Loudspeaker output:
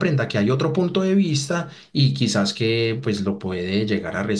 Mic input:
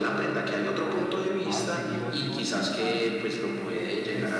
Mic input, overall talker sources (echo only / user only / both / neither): both